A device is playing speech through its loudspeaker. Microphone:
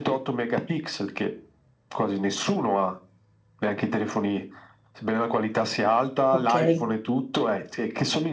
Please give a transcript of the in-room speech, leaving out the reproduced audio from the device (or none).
ok,